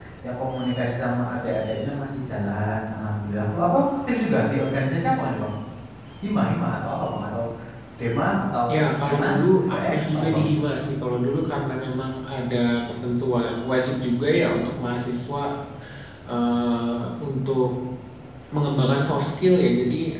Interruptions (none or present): present